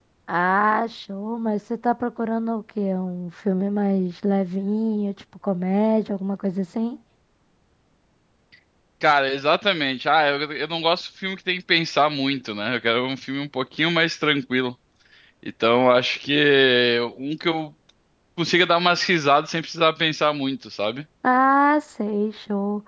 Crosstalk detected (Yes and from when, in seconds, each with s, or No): No